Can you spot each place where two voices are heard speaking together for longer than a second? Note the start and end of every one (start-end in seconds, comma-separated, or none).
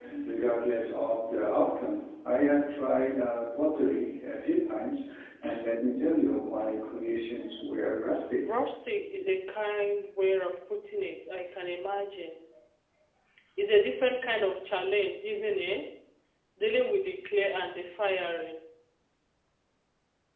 none